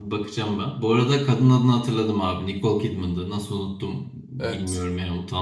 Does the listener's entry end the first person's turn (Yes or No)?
No